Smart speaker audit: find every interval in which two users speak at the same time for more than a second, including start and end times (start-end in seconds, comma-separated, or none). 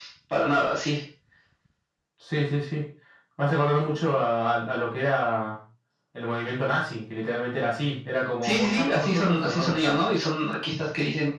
8.4-10.0